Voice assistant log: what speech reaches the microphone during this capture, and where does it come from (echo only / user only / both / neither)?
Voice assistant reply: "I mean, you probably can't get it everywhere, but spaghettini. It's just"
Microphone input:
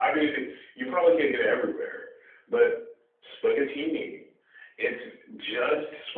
echo only